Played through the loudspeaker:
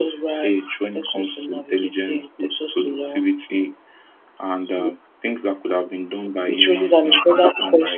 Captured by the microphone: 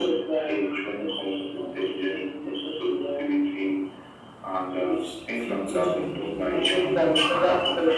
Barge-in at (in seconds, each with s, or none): 4.9 s